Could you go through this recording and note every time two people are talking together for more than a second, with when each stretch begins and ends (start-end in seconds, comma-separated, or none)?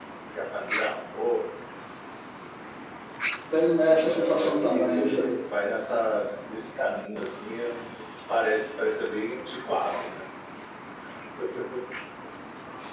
4.0-5.2